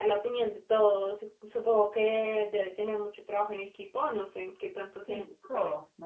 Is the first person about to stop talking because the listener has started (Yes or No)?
Yes